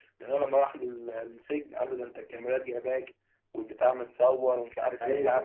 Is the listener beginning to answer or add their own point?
No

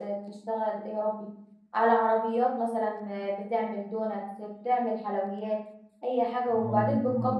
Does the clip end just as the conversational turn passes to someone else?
Yes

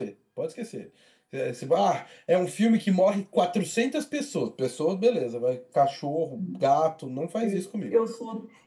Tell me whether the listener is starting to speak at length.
Yes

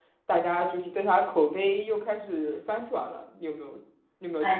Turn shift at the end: Yes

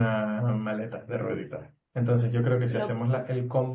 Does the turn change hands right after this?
No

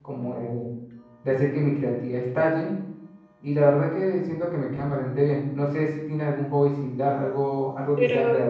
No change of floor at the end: No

